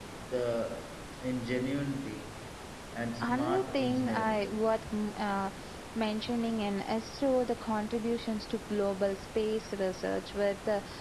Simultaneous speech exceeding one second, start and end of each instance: 3.2-4.6

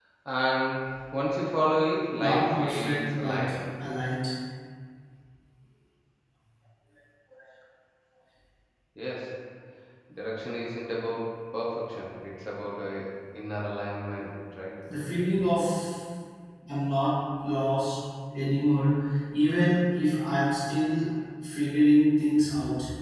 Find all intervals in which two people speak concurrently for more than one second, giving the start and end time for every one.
2.2-3.4

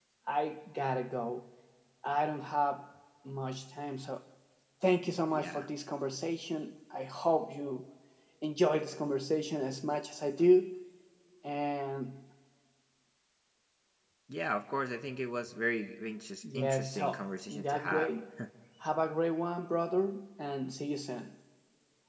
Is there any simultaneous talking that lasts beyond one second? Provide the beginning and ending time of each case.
16.6-18.1

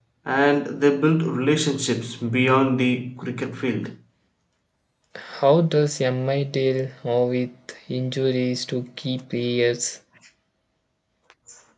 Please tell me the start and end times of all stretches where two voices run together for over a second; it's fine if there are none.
none

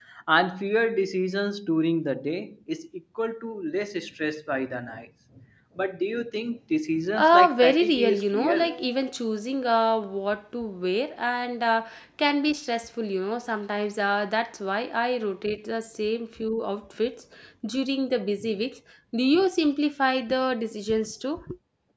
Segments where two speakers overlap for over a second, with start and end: 7.2-8.7

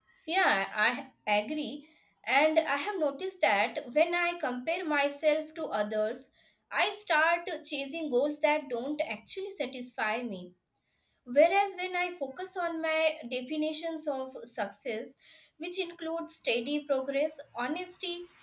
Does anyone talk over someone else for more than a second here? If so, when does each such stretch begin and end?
none

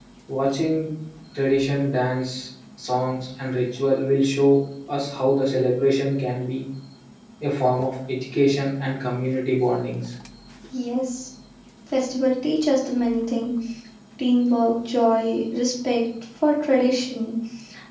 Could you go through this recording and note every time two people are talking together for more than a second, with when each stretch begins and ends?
none

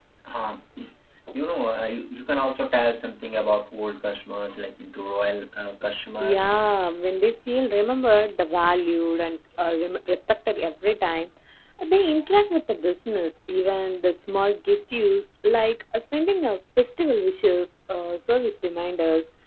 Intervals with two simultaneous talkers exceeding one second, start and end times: none

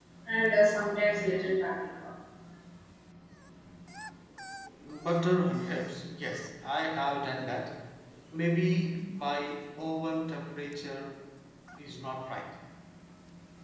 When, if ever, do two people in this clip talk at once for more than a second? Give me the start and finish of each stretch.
none

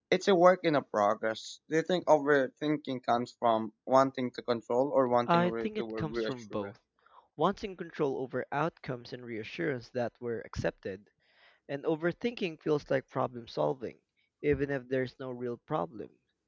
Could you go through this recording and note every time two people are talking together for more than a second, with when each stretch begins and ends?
5.3-6.7

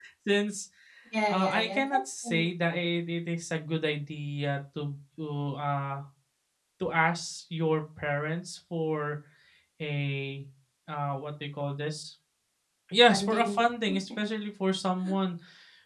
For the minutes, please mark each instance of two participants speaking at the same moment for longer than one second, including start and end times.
1.3-2.8

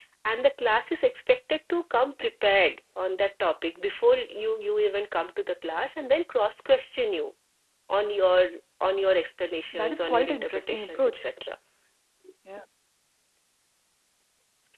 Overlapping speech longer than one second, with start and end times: 9.7-11.2

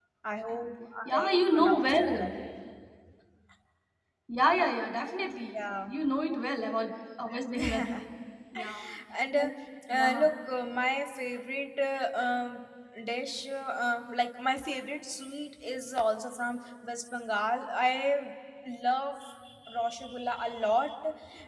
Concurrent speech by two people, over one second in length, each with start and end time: 1.1-2.4

